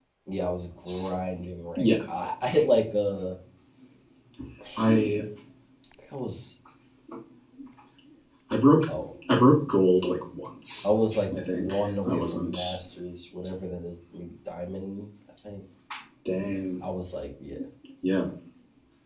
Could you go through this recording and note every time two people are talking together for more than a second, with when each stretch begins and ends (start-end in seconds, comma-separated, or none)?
11.4-12.8